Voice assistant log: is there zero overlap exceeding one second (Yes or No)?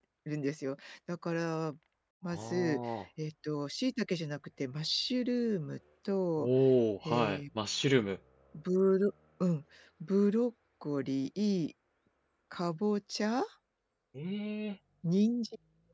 Yes